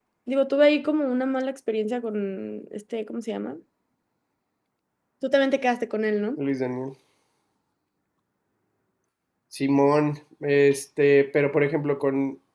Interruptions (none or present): none